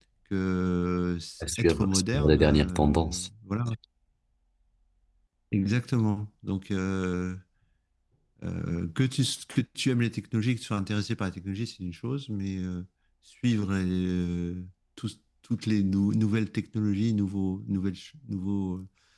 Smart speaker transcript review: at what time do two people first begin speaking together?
1 s

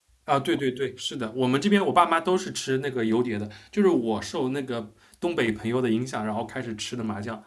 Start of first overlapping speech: none

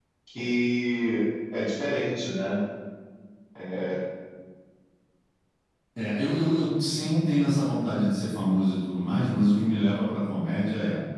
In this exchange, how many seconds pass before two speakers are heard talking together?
none

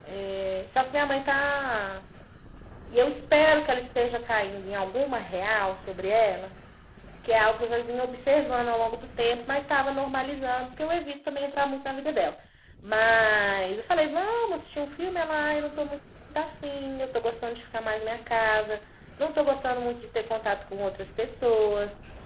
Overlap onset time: none

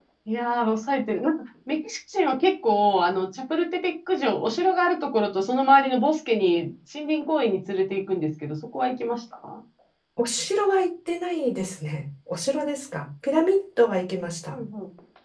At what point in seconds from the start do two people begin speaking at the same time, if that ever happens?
none

